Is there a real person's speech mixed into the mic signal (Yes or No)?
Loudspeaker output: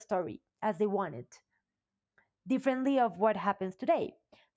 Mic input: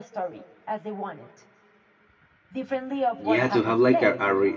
Yes